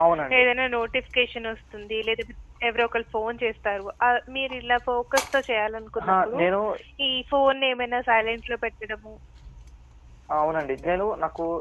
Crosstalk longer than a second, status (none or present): none